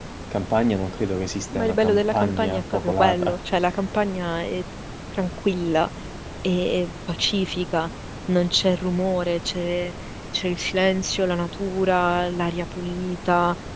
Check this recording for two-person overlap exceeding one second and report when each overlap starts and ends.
1.5-3.4

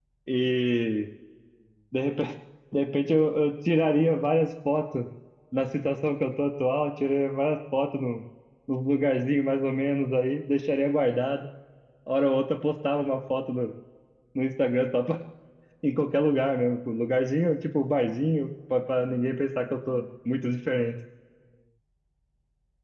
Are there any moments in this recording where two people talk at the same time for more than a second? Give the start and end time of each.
none

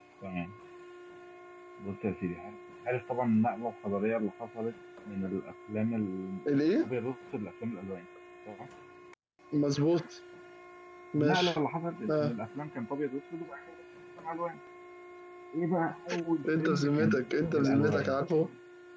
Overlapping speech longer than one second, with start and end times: 16.6-18.2

